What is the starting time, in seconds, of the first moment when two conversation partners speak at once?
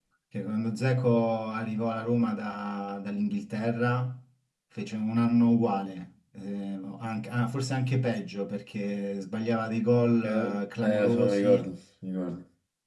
10 s

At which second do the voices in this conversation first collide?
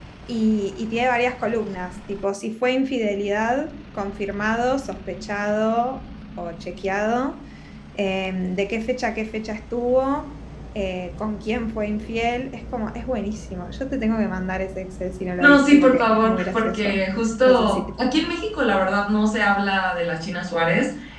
15 s

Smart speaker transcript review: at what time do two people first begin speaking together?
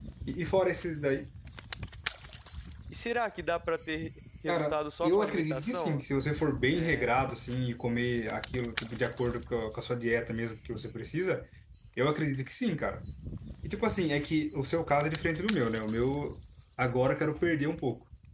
4 s

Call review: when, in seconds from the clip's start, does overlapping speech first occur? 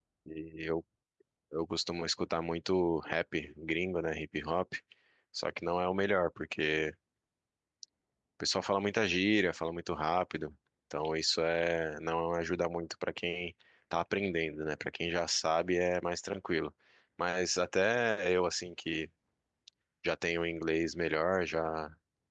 none

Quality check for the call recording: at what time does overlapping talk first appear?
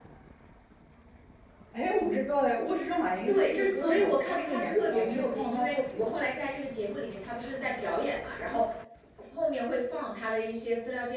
3 s

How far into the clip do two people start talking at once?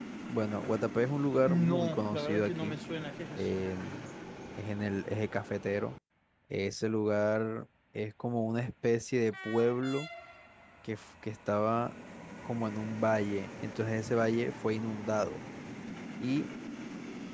1 s

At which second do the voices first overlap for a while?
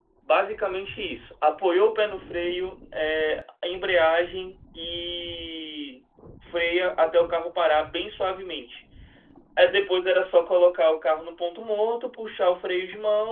none

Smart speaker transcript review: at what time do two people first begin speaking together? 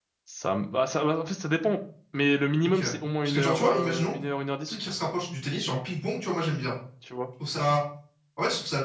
3 s

